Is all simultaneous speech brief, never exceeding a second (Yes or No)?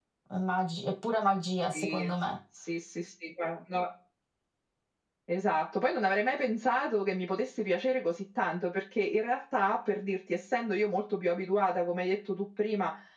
Yes